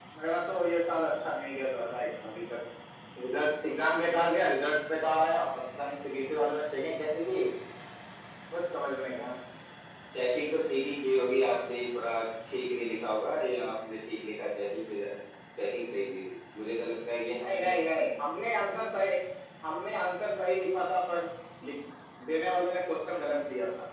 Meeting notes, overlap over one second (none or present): none